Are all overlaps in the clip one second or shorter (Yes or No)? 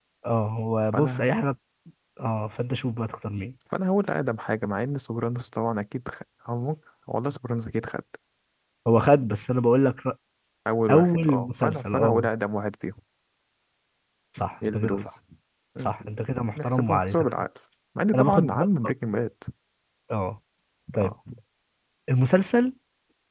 No